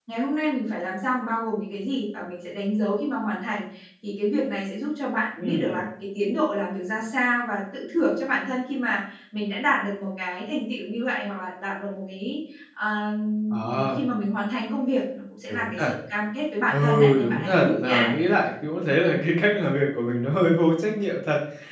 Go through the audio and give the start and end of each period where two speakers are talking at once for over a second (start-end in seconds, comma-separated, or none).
16.7-18.2